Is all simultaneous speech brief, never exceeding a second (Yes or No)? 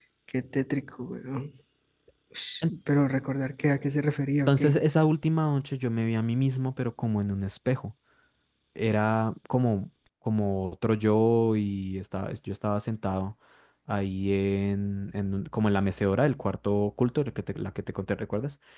Yes